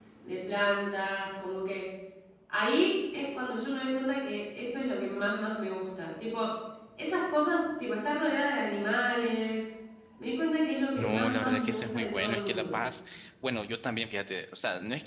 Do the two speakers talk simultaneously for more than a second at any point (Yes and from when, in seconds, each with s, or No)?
Yes, from 11.0 s